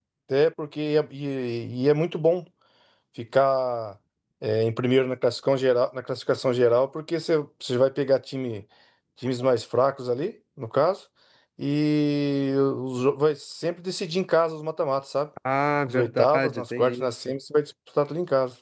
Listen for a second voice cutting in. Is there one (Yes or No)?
Yes